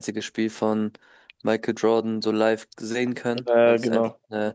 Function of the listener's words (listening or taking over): listening